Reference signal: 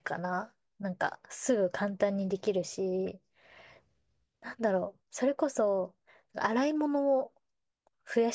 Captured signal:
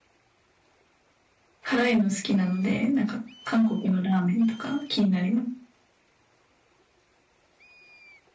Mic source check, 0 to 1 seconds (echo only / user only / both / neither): neither